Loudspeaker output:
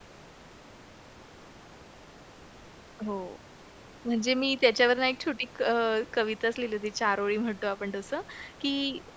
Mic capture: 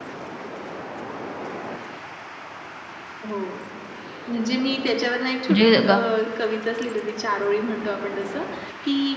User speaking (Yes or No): Yes